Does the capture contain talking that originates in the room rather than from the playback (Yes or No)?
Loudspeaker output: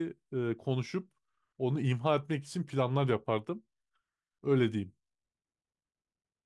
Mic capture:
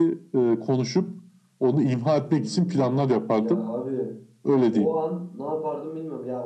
Yes